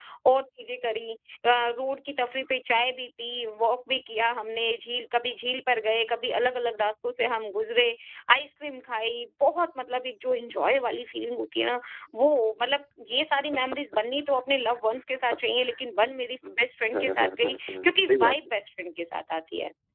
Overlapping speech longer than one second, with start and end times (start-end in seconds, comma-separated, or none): 16.9-18.4